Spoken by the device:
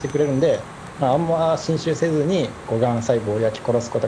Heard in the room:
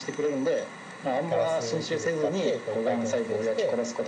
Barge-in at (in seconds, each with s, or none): 1.2 s